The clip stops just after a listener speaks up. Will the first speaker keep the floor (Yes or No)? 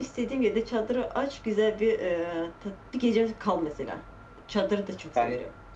No